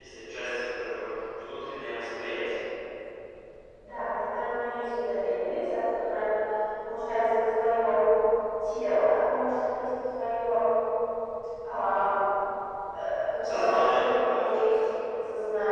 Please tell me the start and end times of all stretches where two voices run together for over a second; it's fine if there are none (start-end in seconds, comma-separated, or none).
13.4-14.8